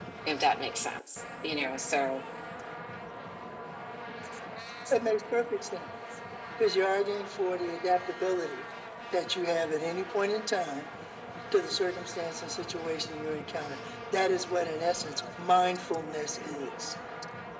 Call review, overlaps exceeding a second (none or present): none